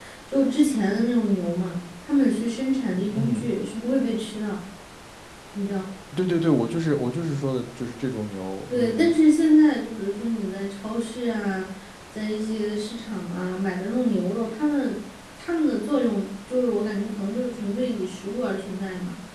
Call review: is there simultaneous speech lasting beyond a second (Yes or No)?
No